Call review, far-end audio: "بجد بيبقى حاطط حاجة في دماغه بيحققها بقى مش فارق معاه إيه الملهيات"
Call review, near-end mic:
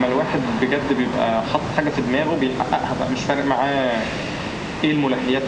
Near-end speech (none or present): none